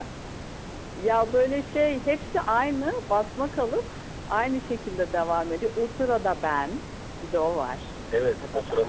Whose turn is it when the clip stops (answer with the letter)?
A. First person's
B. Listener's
B